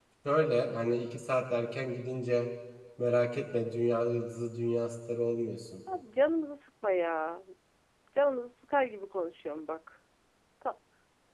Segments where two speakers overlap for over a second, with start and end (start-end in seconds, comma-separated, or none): none